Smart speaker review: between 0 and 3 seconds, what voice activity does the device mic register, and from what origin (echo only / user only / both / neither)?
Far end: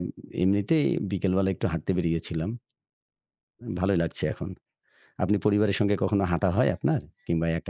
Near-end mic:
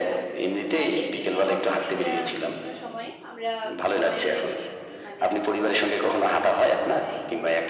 both